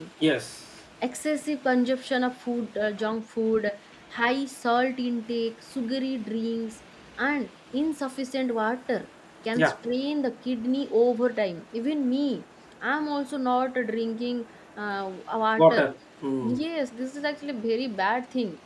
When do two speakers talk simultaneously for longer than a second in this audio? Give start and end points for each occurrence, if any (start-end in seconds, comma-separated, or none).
none